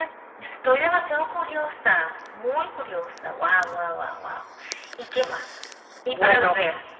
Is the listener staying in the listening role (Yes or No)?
Yes